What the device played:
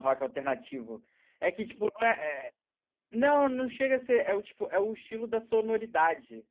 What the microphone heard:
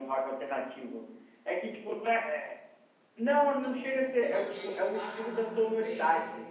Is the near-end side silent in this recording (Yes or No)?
No